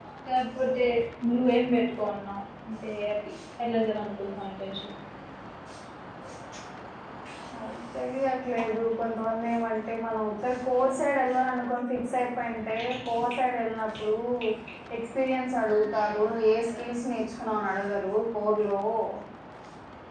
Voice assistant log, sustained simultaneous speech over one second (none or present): none